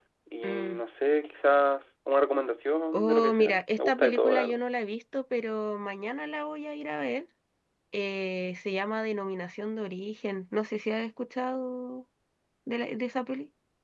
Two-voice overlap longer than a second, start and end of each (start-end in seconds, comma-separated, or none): 2.9-4.6